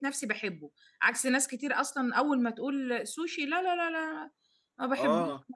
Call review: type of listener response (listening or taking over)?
taking over